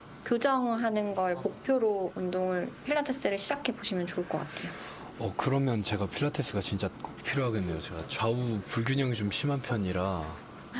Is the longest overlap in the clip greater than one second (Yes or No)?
No